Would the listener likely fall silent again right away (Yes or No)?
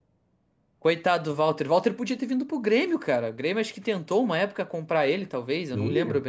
No